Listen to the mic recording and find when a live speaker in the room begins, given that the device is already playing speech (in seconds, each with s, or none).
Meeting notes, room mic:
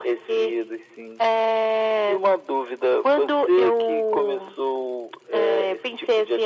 none